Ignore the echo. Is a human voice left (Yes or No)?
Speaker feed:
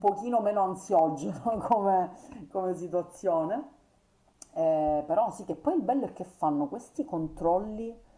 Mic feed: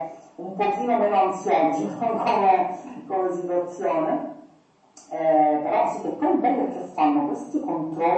No